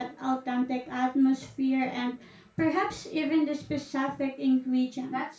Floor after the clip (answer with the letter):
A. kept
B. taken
B